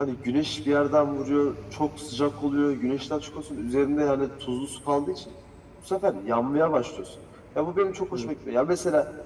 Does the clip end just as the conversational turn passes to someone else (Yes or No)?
No